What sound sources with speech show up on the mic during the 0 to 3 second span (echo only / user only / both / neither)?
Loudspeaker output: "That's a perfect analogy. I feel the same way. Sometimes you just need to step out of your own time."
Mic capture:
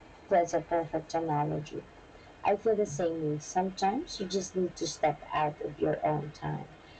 echo only